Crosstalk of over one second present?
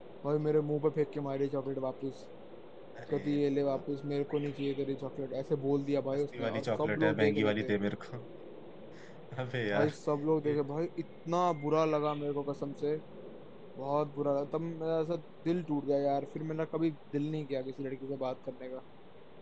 Yes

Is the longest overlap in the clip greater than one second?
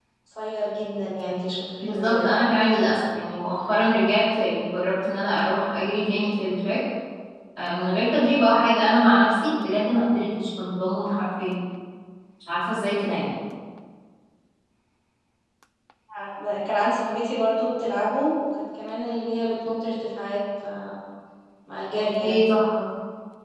No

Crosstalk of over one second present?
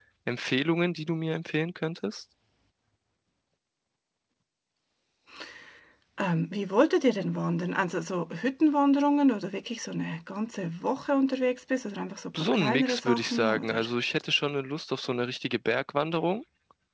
Yes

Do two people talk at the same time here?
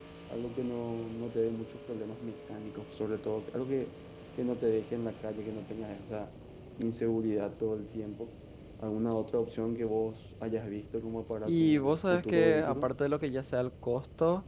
Yes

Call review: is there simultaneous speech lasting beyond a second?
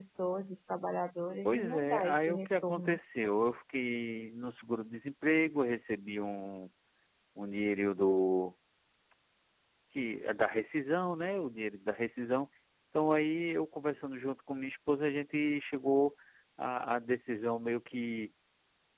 Yes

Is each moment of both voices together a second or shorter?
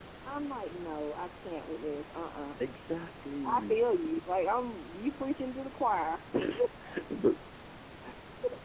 Yes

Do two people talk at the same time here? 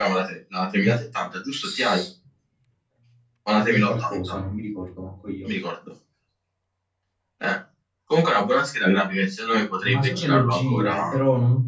Yes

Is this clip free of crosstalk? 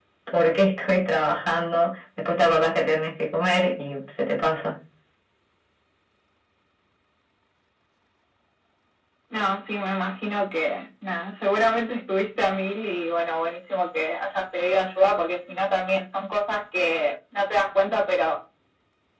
Yes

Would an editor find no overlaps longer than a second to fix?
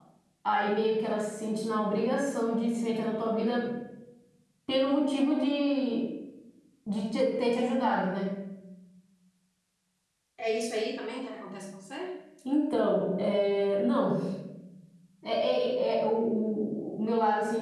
Yes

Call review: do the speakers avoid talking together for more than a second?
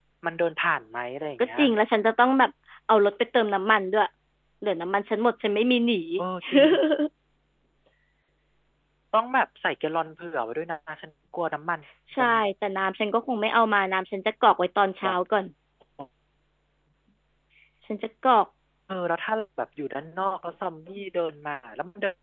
Yes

